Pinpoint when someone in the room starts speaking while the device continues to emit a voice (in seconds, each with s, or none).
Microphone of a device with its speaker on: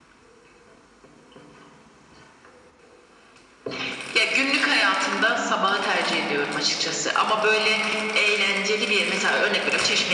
none